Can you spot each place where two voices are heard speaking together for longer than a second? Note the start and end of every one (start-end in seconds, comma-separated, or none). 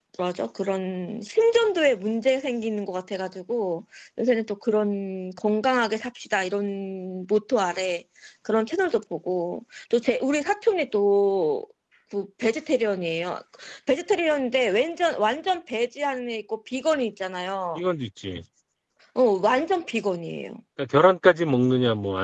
none